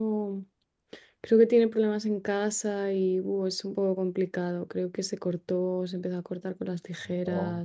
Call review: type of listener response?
listening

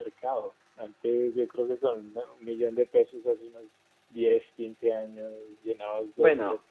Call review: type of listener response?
listening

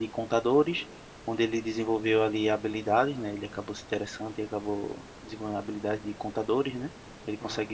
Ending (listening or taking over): listening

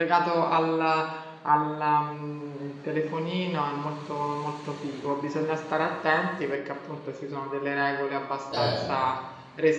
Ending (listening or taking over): listening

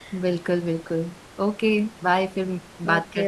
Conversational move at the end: taking over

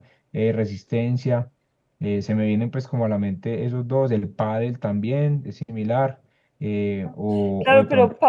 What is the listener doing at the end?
taking over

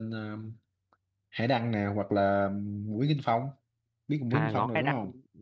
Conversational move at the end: taking over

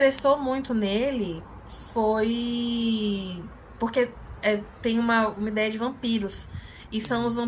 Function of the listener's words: listening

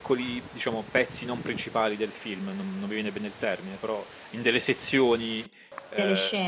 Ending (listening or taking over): listening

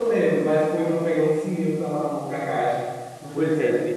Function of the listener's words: taking over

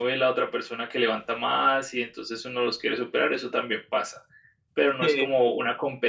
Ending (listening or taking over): listening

